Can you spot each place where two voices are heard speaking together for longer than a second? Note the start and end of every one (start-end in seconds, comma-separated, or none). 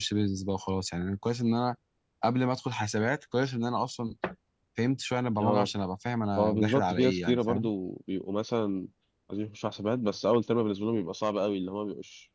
6.4-7.7